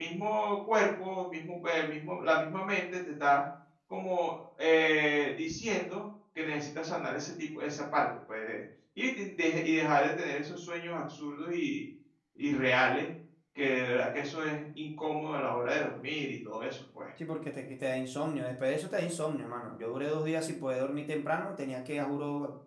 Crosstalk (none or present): none